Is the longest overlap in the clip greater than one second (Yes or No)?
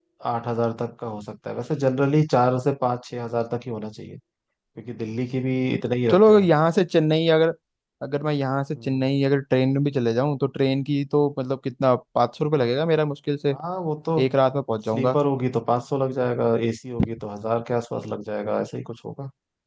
No